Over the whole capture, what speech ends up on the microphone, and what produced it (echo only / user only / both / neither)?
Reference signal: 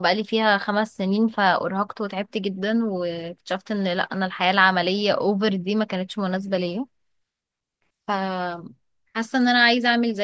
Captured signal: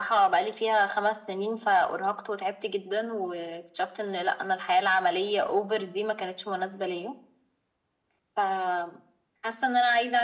echo only